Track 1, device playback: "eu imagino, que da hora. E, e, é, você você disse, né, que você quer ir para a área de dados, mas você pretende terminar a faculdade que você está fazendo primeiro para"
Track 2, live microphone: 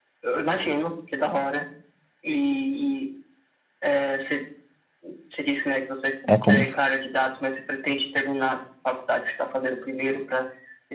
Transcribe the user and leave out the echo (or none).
é como.